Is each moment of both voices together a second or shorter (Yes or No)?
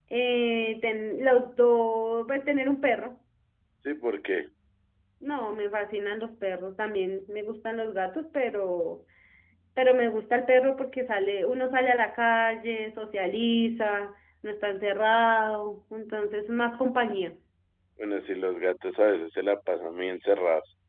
Yes